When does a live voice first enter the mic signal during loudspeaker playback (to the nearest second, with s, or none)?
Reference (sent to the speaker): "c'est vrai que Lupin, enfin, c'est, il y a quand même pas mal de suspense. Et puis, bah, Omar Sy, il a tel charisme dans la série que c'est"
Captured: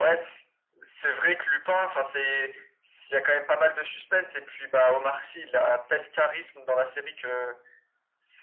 none